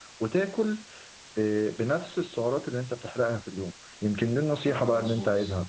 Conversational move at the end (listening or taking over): listening